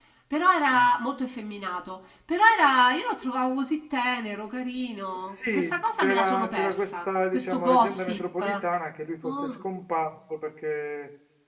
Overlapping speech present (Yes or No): Yes